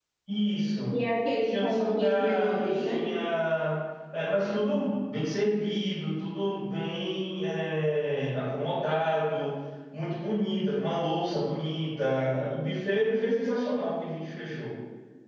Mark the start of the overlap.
1.4 s

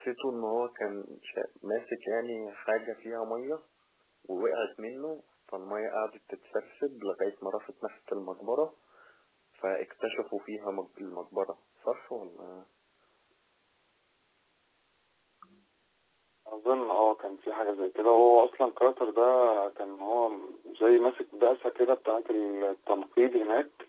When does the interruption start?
none

